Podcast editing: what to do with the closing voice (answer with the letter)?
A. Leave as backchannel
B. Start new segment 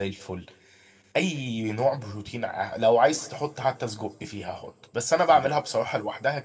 A